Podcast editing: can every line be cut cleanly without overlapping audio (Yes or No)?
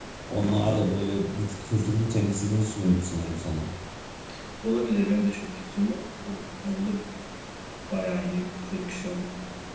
Yes